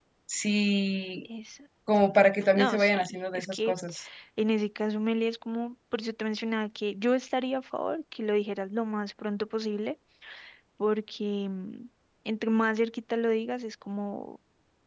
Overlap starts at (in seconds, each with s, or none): 2.5 s